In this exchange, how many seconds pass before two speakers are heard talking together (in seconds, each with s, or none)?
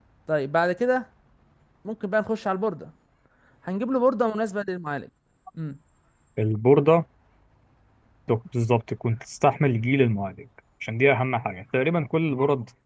none